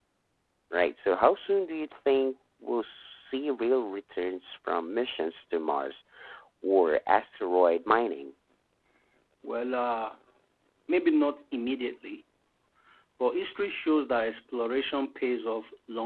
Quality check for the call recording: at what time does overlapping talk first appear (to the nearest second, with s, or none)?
none